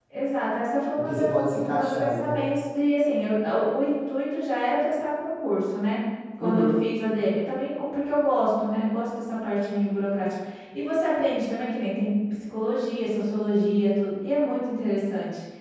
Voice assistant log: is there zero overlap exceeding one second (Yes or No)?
No